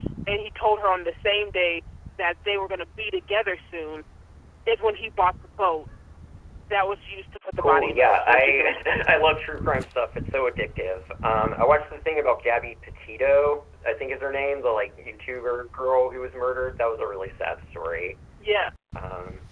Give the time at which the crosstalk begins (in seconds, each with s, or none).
7.6 s